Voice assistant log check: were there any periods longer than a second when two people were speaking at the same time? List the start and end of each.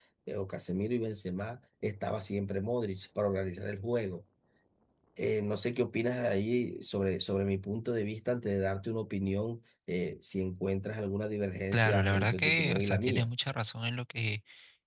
11.7-13.3

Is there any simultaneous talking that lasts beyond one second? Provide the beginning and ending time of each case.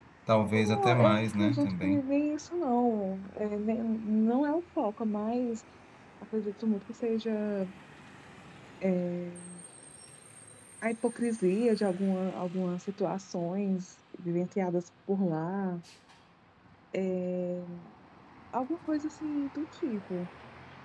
0.6-2.0

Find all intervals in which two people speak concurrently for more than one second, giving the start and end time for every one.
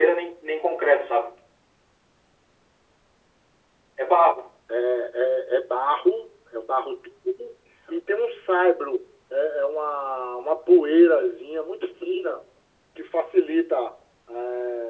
none

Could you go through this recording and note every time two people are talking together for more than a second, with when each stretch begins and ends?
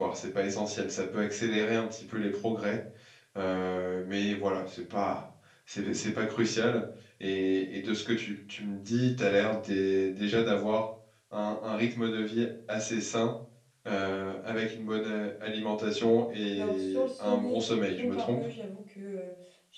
16.6-18.4

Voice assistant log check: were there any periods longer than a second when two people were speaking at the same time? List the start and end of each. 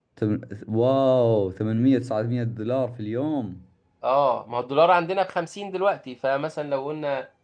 none

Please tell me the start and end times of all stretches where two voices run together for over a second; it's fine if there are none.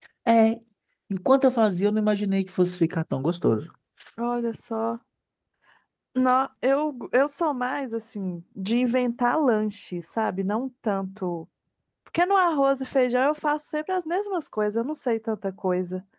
none

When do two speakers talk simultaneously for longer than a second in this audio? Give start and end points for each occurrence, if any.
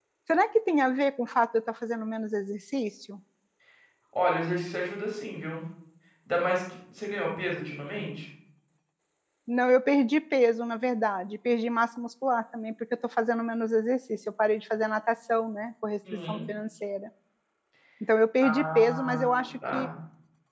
18.4-19.9

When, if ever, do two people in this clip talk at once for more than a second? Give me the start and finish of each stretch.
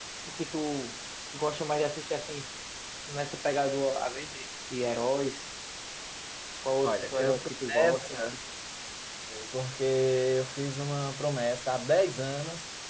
6.8-8.2

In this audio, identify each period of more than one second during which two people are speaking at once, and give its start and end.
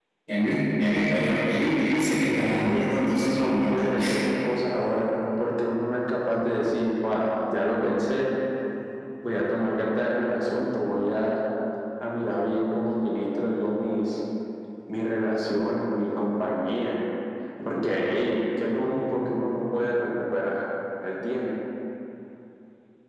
2.3-3.9

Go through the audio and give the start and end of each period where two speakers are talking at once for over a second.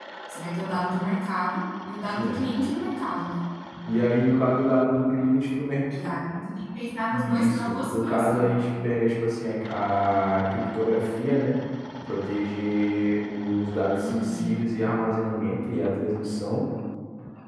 7.1-8.5

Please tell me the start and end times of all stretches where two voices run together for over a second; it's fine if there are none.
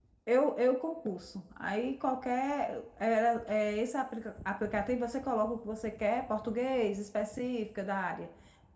none

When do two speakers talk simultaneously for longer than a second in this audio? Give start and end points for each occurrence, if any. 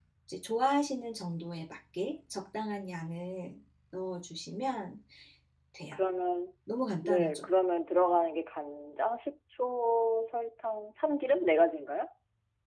none

